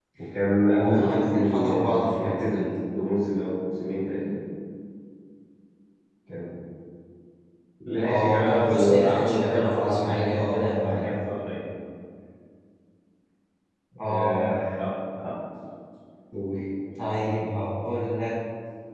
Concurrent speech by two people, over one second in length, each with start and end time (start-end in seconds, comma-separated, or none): 0.6-2.6, 8.0-11.0